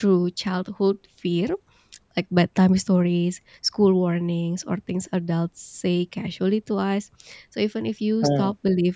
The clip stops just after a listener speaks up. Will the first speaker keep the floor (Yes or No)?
Yes